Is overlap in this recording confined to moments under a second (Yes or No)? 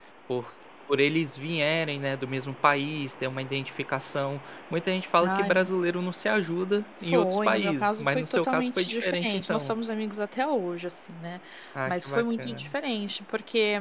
No